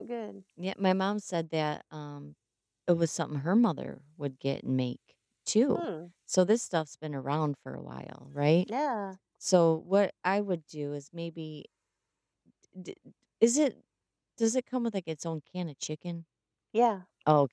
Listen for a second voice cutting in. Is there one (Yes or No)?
No